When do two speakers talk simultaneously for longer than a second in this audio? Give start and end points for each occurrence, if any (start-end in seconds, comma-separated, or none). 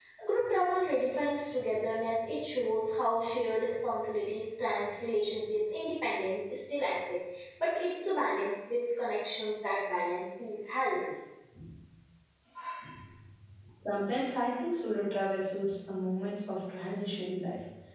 none